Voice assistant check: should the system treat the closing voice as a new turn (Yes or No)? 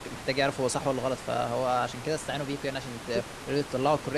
No